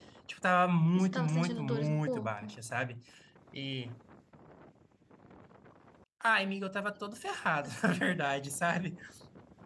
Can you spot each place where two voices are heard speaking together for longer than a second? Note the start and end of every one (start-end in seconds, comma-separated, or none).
0.9-2.5